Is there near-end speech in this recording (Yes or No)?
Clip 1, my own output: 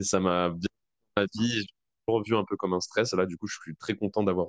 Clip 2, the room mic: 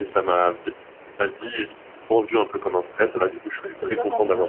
Yes